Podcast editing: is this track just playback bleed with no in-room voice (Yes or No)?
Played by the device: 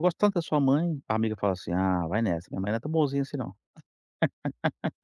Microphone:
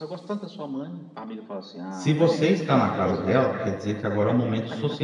No